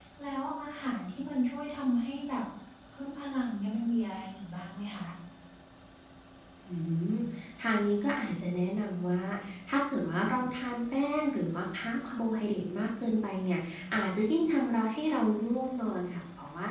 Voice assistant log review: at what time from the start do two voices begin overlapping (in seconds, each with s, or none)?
none